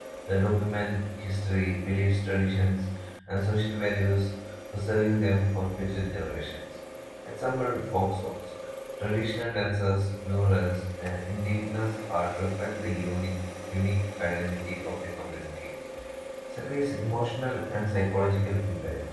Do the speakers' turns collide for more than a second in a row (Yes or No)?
No